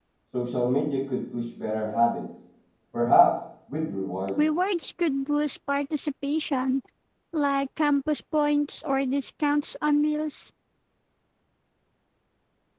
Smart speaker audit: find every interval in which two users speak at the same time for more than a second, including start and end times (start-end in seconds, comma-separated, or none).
none